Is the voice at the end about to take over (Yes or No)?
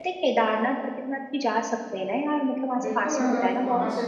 Yes